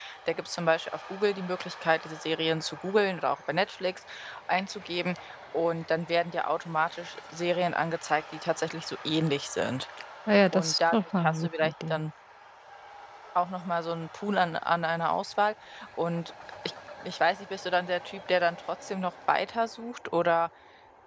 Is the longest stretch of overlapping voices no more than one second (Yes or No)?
No